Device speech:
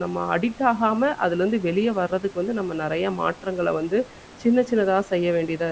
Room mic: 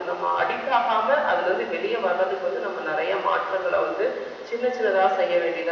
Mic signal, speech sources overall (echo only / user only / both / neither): echo only